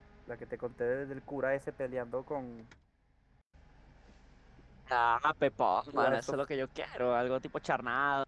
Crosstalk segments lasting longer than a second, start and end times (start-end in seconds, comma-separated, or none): none